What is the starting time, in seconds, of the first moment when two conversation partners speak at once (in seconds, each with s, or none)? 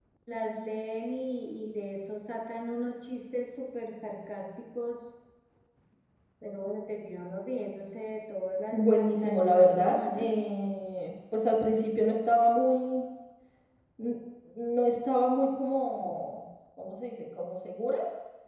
8.7 s